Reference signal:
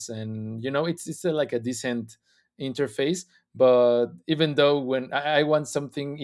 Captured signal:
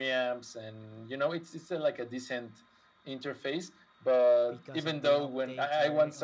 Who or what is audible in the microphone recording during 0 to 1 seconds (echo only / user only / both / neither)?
echo only